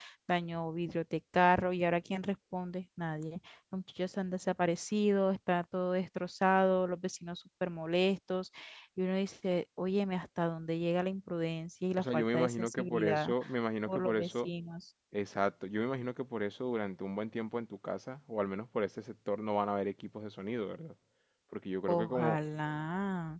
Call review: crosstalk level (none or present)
present